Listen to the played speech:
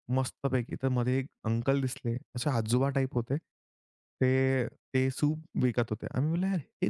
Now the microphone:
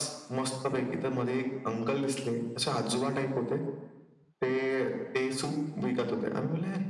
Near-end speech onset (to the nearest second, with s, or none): none